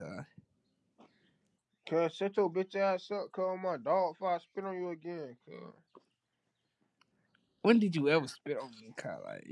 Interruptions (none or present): none